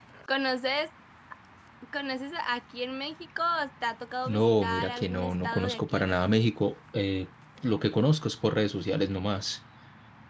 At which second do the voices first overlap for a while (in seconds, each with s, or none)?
4.2 s